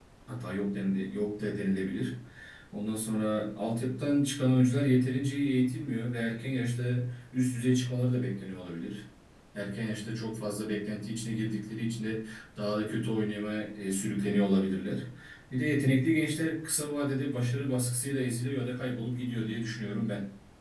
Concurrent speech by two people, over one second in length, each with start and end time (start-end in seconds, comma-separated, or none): none